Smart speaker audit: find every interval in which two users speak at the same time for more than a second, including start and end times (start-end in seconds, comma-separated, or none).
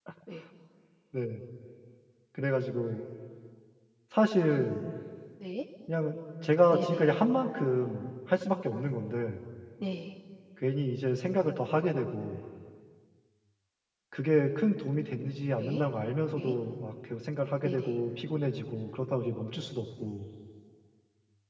none